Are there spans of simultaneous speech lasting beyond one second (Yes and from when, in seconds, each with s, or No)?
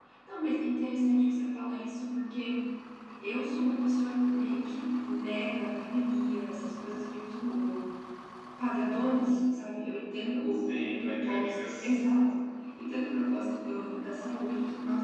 Yes, from 10.5 s